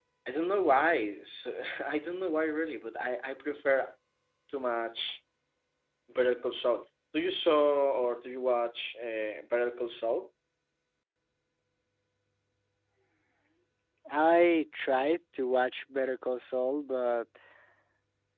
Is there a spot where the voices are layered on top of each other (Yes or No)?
No